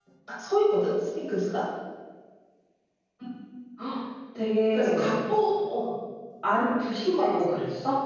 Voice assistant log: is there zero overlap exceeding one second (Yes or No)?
Yes